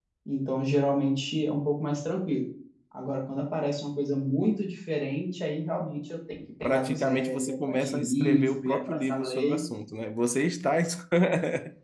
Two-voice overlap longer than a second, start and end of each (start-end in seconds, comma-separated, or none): 6.6-9.6